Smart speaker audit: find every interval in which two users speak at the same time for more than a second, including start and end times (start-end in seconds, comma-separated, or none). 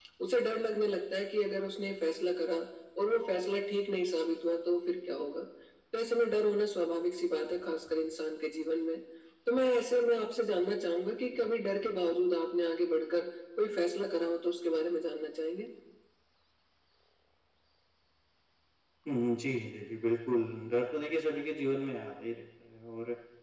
none